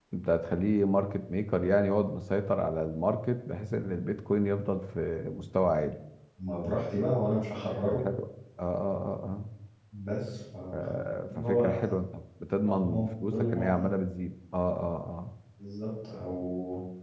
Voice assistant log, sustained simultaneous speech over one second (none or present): present